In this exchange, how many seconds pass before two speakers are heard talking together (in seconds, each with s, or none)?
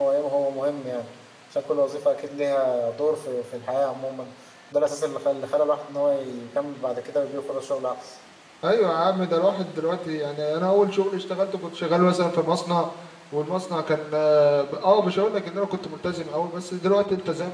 none